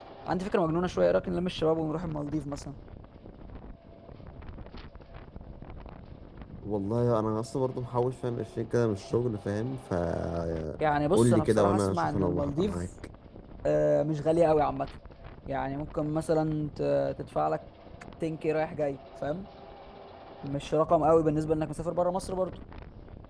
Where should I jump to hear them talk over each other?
11.1 s

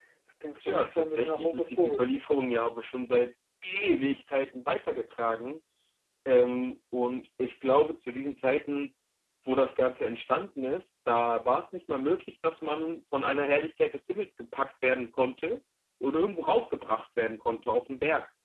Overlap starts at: 0.6 s

